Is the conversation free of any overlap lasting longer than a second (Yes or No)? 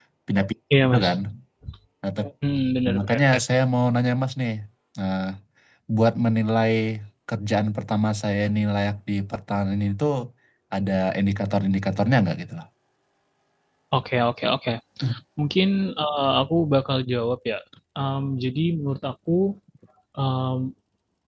Yes